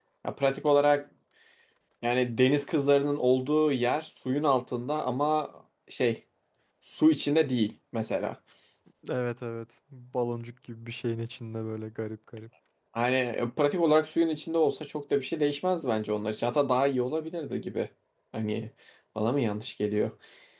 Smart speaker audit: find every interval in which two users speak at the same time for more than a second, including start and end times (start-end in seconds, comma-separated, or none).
none